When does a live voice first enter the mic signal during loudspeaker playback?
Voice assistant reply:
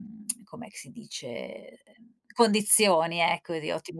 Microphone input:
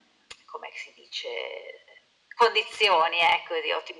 none

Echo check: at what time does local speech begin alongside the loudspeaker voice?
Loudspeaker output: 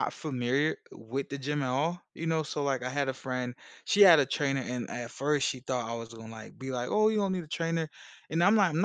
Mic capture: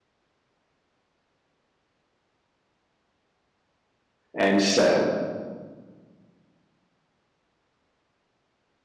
4.3 s

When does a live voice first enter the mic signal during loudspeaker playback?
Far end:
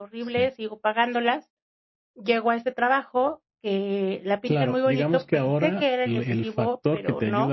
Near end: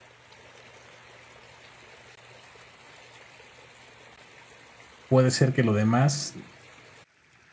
5.1 s

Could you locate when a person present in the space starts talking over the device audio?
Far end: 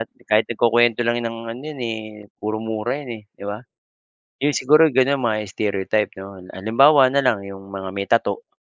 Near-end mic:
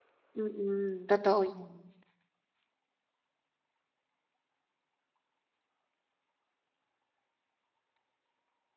0.4 s

